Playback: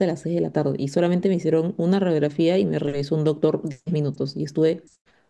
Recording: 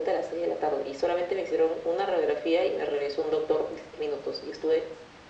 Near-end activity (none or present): none